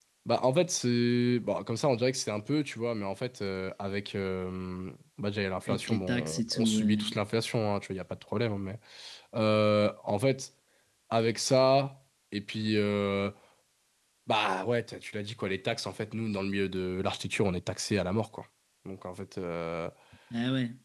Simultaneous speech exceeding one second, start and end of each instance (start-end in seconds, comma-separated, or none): 5.7-7.0